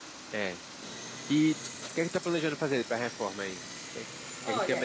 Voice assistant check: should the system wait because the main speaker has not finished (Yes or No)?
No